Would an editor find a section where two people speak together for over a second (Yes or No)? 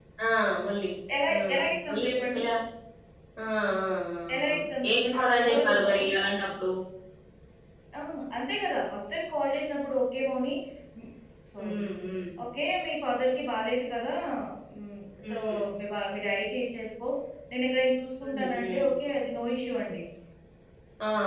Yes